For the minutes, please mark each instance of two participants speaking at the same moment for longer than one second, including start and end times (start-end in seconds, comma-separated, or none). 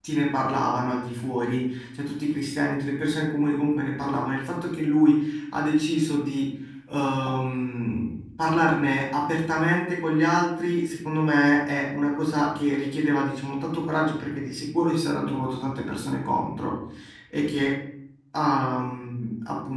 none